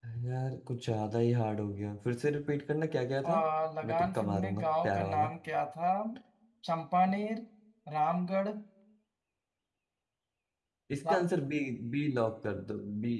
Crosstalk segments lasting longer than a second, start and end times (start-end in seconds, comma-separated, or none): 3.8-5.3